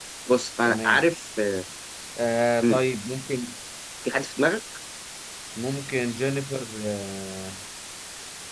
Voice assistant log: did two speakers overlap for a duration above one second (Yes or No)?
No